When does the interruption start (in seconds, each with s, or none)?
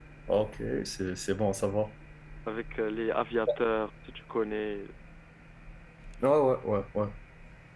none